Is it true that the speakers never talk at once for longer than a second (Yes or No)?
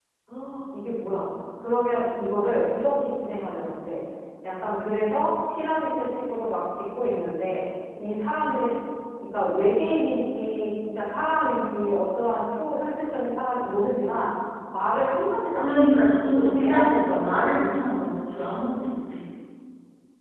No